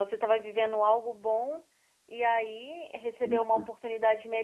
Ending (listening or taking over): listening